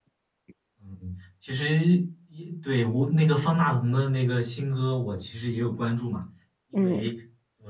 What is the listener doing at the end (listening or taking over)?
listening